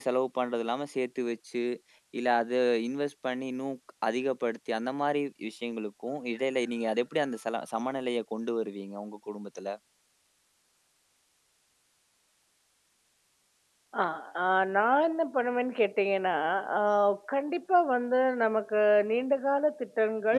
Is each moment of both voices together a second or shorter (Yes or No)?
Yes